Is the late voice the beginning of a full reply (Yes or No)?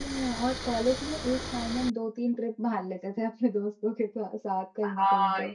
Yes